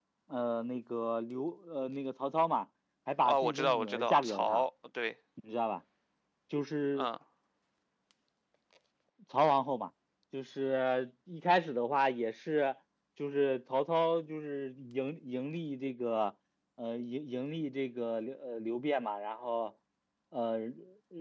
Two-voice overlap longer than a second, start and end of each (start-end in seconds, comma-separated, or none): 3.2-4.6